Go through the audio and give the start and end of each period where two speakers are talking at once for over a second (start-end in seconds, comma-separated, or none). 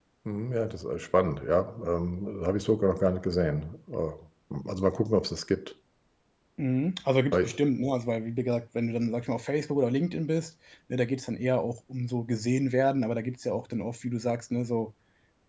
none